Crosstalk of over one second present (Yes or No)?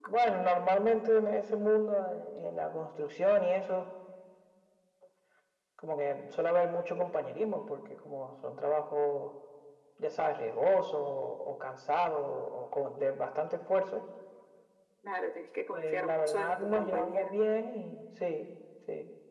Yes